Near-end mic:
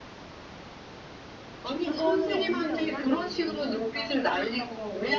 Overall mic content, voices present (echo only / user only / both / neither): both